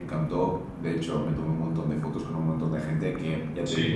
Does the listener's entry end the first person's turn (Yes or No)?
No